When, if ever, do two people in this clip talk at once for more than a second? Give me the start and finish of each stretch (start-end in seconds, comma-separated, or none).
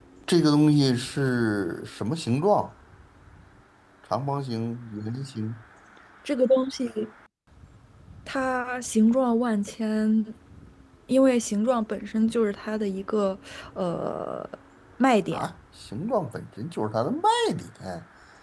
none